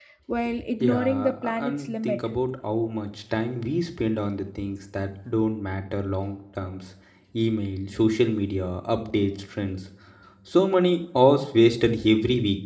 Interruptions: present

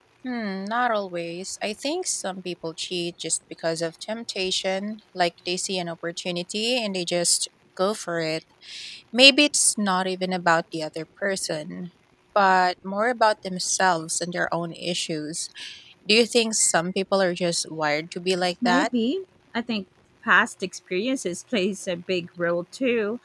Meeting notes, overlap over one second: none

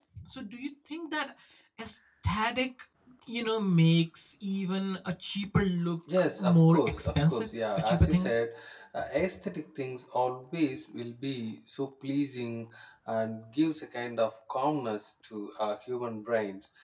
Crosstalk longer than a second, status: present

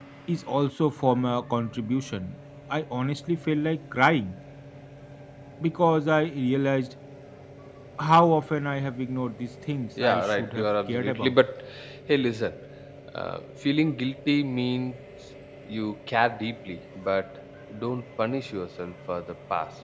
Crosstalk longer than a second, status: present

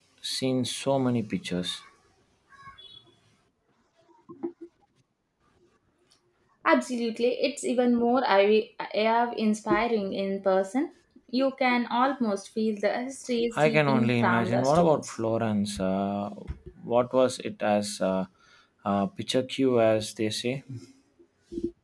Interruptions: present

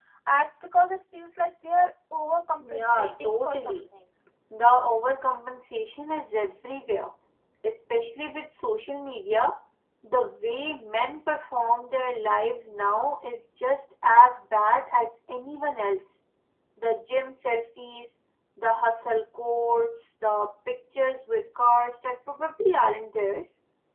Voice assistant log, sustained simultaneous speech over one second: present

